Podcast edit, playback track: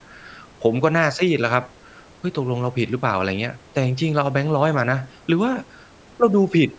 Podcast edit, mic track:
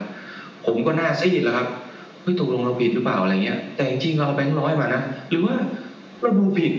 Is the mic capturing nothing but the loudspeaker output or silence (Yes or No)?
Yes